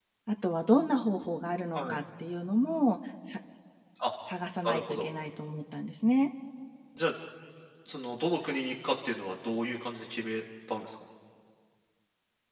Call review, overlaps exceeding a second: none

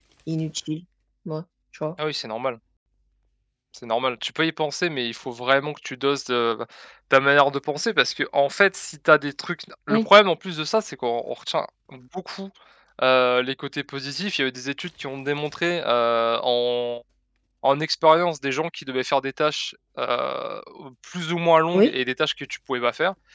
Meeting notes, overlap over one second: none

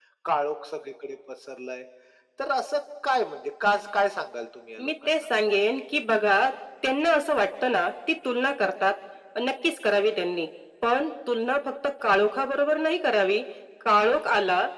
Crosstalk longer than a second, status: none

